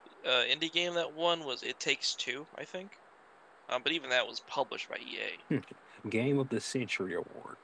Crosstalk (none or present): none